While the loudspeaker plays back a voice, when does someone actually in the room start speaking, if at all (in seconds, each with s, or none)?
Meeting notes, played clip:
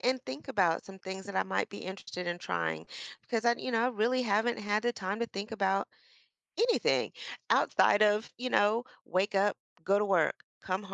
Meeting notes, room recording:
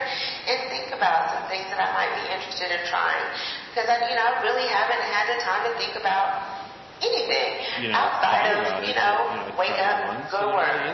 7.7 s